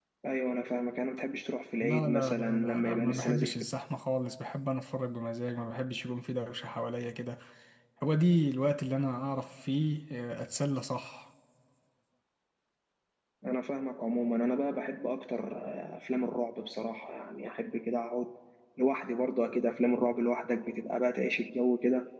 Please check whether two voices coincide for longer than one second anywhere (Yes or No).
Yes